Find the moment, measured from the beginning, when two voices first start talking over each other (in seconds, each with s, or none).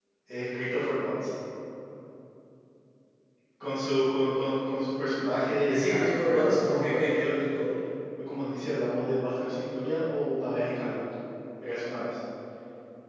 5.7 s